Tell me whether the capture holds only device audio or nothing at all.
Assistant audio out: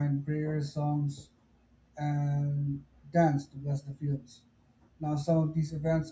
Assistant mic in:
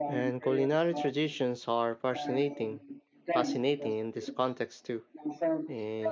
No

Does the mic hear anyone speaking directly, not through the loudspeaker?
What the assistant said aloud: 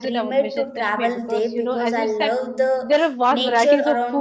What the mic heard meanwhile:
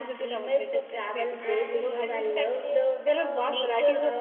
Yes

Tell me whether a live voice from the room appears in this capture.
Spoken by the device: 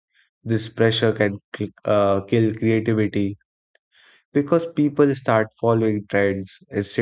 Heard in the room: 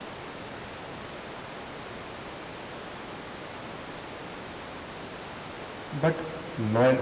Yes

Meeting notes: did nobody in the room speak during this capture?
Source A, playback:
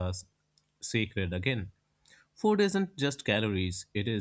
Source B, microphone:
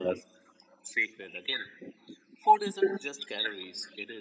Yes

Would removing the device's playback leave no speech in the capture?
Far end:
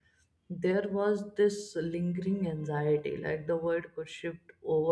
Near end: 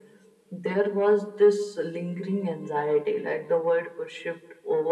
Yes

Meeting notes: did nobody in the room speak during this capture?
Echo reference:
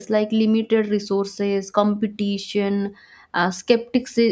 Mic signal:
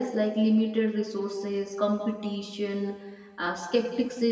Yes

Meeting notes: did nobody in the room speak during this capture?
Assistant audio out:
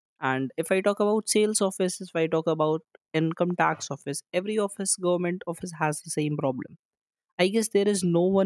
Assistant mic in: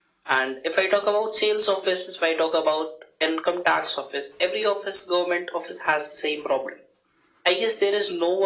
Yes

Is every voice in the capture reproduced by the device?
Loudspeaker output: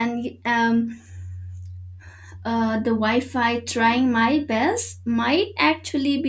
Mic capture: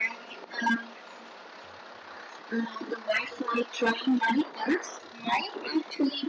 Yes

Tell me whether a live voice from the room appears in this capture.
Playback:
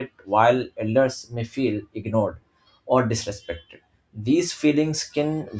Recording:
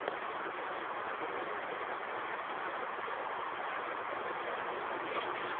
No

